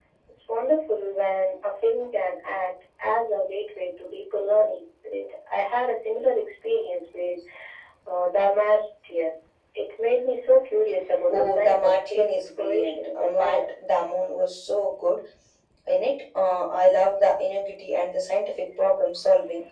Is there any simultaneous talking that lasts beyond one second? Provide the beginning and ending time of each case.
11.3-13.7

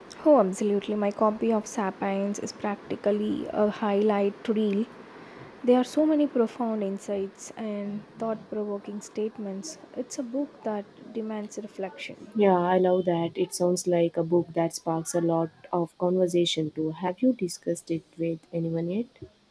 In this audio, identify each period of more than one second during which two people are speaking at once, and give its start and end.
none

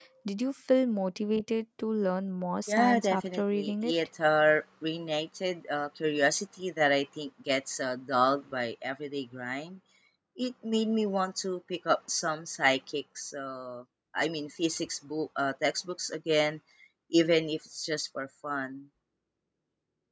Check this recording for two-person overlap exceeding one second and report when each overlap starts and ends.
2.7-3.9

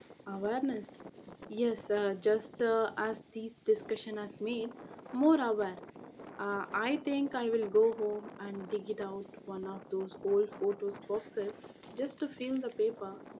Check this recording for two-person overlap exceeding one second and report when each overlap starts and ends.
none

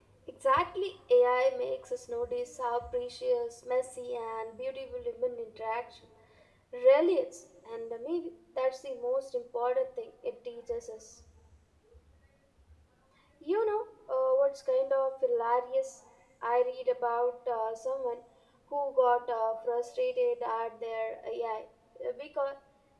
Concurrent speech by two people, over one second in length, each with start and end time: none

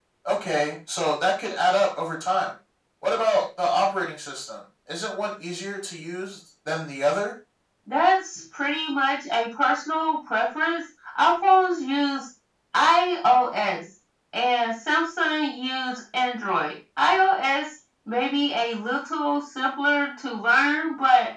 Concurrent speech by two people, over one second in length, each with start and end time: none

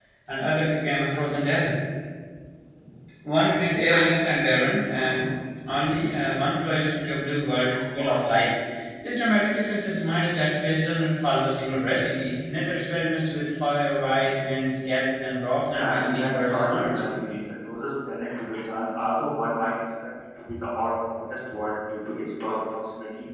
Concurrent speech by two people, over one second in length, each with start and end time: 15.7-16.9

